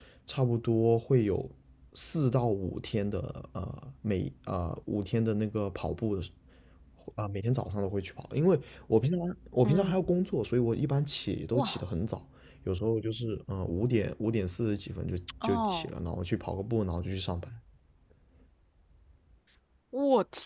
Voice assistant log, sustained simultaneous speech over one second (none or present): none